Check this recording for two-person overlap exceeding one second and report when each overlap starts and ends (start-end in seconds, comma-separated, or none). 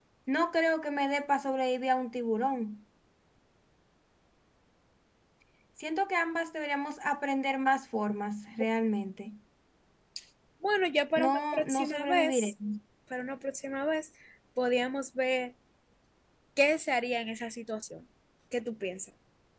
11.2-12.5